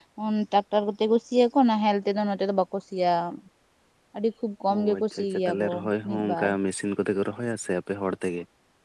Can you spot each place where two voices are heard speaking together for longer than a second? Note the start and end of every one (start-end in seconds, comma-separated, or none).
4.8-6.5